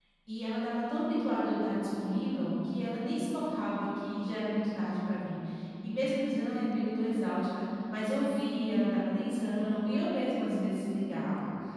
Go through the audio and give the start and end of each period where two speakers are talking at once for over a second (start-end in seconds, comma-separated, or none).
none